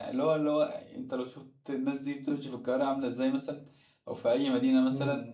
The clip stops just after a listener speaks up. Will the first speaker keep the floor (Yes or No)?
Yes